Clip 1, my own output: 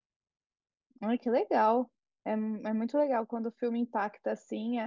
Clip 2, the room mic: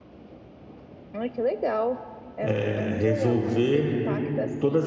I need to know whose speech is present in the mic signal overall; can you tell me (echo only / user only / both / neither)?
both